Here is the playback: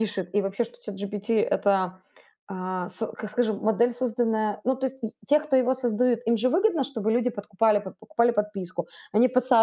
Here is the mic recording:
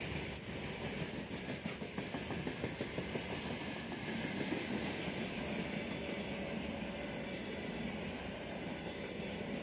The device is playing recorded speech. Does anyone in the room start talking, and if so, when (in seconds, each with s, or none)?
none